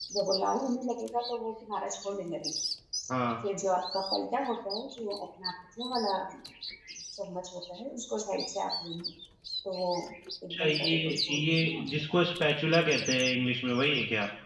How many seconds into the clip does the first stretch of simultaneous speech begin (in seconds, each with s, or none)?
10.5 s